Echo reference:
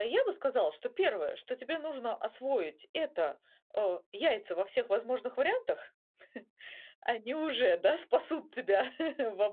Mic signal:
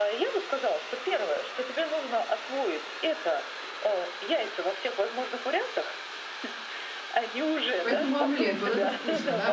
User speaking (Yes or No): Yes